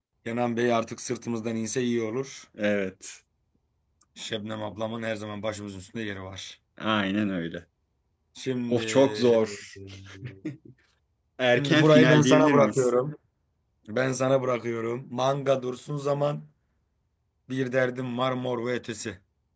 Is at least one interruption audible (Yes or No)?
Yes